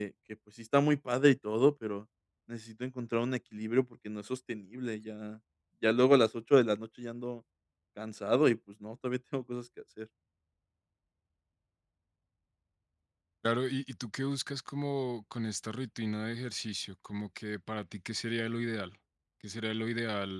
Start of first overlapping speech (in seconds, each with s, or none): none